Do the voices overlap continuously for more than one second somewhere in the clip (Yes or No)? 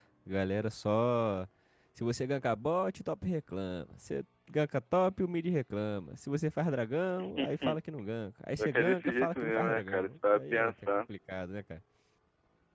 Yes